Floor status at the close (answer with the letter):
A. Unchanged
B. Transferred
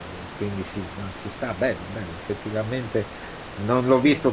A